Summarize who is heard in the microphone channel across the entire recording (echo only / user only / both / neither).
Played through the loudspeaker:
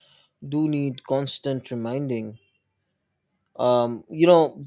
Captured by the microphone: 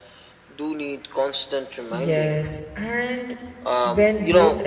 both